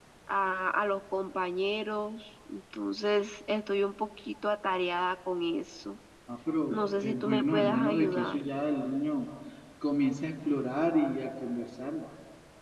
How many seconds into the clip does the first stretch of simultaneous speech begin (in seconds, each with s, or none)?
6.7 s